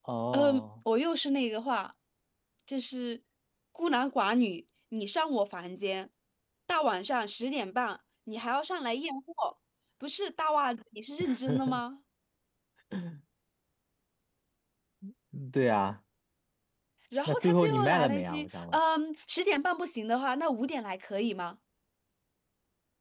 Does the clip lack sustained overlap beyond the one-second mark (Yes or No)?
No